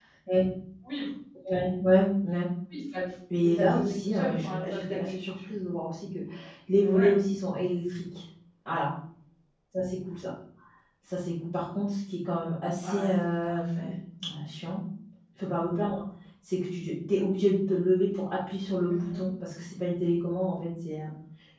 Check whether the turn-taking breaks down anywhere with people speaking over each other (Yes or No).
Yes